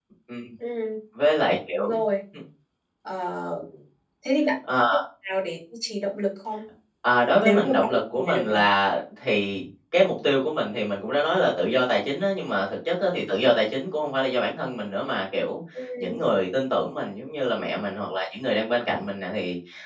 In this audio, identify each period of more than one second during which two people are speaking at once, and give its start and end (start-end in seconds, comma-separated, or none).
7.4-8.6